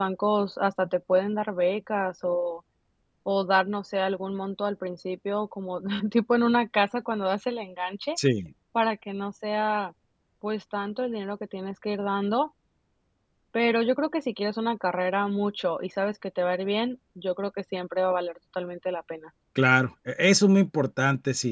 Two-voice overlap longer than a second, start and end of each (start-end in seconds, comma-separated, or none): none